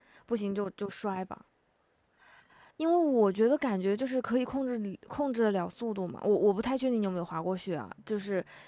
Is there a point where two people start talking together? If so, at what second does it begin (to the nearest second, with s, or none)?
none